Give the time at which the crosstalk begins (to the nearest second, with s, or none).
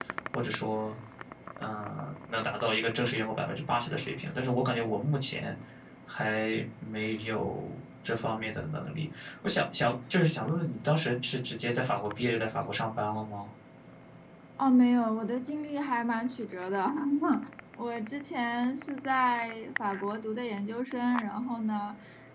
none